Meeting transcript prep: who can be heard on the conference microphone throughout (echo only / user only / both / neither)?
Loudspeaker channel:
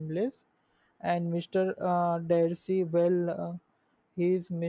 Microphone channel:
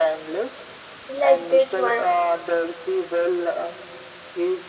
both